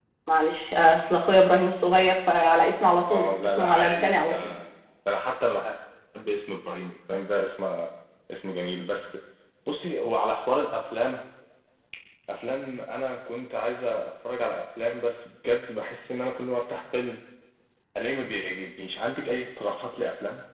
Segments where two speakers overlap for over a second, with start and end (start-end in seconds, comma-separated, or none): 3.1-4.5